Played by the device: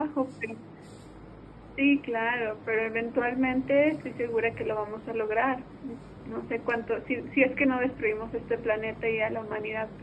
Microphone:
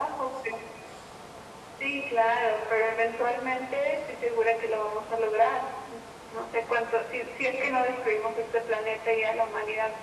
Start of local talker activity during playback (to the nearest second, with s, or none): none